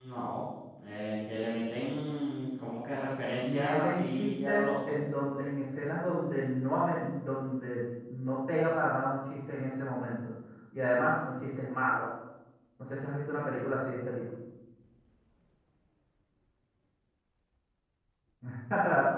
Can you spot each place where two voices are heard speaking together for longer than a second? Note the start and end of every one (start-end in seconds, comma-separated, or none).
3.4-5.0